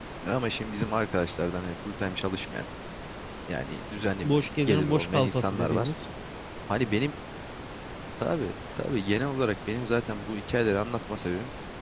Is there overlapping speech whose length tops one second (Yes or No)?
Yes